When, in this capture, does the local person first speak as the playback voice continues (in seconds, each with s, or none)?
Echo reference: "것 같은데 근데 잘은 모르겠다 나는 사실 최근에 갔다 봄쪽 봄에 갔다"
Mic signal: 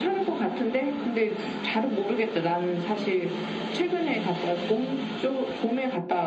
none